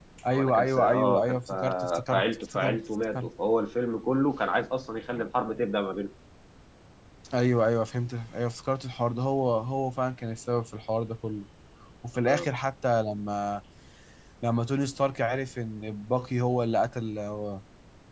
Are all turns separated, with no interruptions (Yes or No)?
No